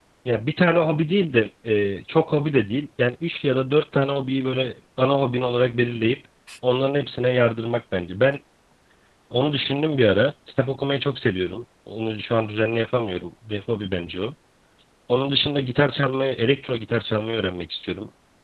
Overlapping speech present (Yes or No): No